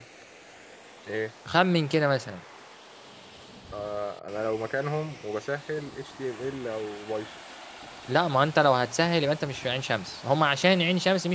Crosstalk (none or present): none